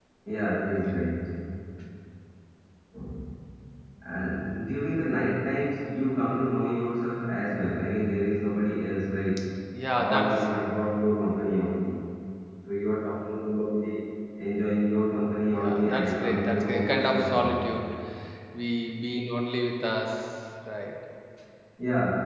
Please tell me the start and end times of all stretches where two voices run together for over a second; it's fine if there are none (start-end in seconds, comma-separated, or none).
15.5-17.6